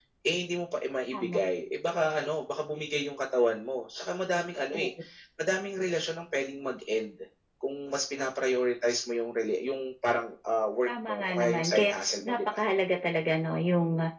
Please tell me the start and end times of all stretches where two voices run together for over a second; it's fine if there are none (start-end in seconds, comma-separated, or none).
10.9-12.6